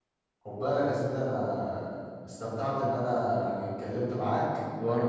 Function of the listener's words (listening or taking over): taking over